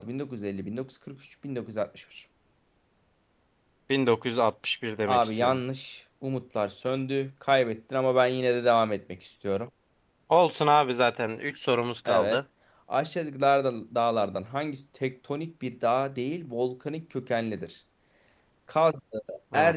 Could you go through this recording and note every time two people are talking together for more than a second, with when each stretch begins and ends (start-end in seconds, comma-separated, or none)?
none